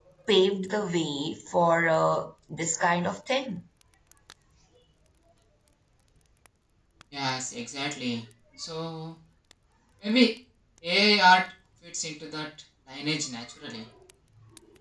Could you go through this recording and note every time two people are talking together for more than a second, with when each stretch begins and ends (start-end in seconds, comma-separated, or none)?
none